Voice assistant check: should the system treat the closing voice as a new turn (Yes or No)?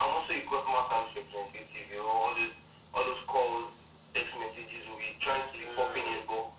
No